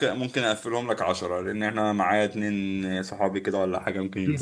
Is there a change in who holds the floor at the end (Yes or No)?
Yes